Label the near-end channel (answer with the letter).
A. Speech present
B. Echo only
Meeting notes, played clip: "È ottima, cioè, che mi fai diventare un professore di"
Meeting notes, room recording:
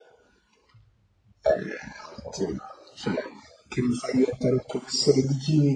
B